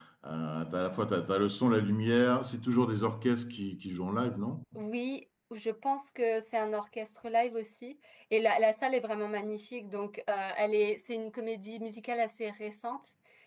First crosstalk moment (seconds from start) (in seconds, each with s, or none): none